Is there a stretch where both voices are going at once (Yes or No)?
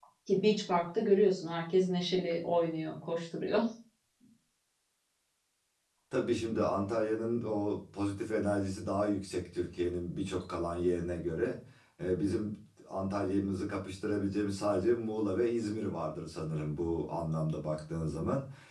No